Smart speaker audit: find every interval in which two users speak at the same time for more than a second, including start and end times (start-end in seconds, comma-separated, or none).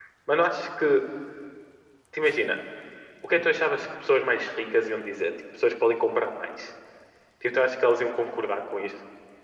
none